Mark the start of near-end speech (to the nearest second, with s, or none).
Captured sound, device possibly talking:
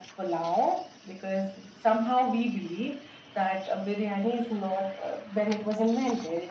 none